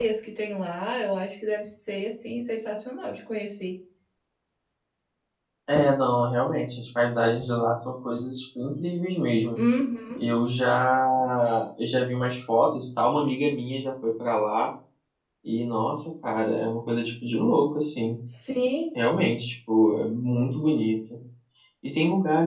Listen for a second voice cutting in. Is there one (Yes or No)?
No